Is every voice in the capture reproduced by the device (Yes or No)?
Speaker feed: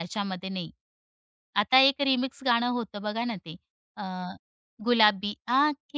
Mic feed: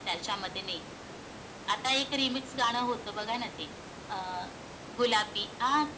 Yes